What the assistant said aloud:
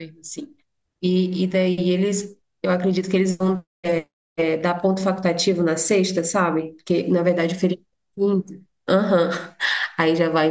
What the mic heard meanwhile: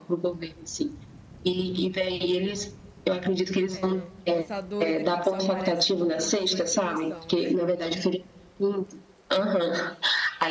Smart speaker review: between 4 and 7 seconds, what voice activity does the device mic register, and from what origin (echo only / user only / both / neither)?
both